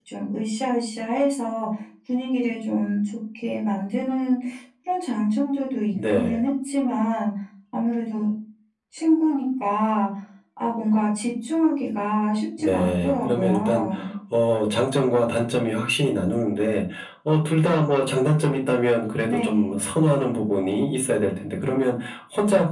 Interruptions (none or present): present